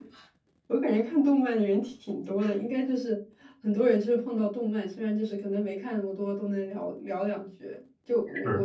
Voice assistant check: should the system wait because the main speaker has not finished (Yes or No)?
Yes